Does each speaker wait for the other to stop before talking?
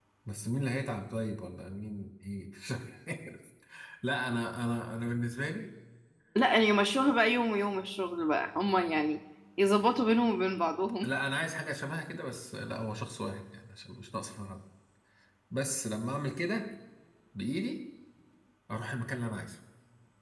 Yes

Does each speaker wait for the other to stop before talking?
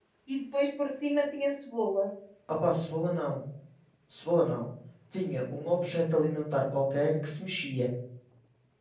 Yes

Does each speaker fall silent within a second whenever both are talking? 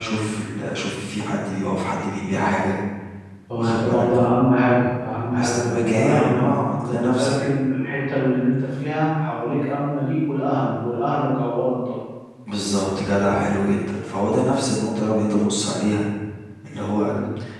No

